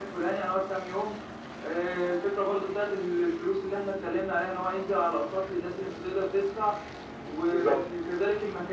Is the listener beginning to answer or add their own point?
No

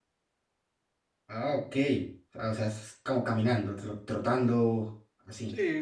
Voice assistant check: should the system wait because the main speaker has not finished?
No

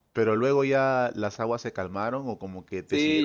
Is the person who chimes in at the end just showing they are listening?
No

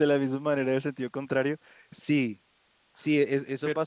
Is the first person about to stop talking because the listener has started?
No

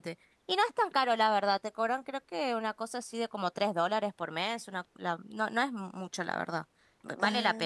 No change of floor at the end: No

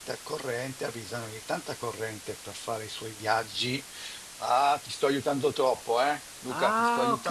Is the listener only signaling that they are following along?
No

